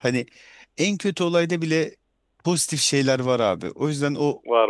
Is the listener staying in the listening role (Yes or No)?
Yes